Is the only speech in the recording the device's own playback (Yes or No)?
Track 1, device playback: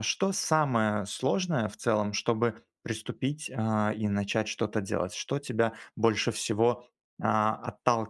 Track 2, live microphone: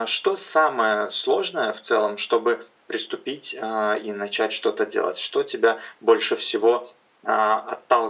Yes